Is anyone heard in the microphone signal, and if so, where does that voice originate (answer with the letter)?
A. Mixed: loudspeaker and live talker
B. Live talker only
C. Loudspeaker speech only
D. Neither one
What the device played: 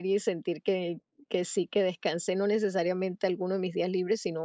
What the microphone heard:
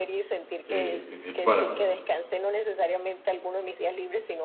A